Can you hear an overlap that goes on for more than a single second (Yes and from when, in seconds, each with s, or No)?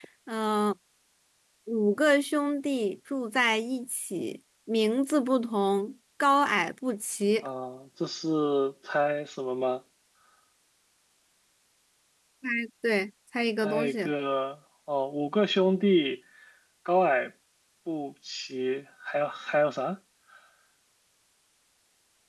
No